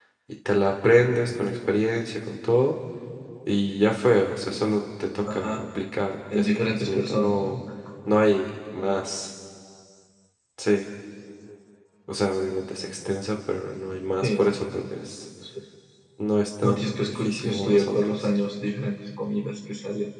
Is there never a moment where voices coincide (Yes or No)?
No